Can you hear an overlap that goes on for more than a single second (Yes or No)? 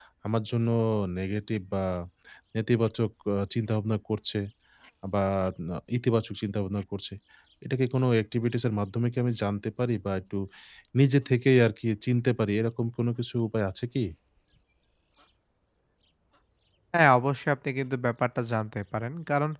No